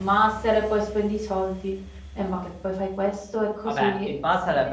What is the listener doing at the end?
taking over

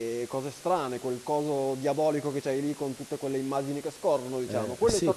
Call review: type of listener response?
taking over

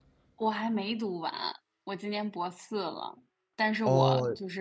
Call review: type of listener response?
listening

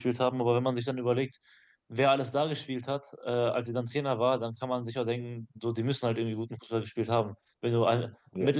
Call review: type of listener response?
listening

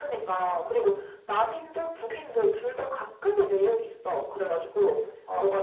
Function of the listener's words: listening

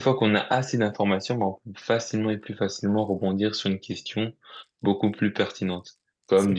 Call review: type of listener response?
listening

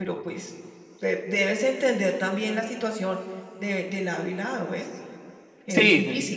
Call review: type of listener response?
taking over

